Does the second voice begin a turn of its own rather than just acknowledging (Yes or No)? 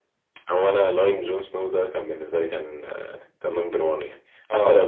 No